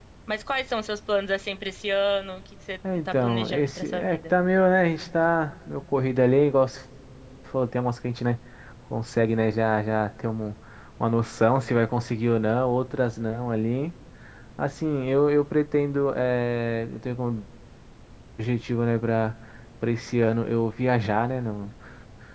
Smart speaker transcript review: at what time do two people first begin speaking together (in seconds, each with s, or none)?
2.8 s